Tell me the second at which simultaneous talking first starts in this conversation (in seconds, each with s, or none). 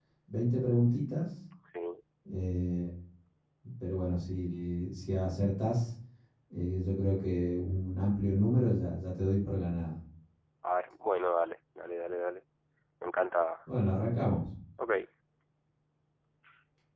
none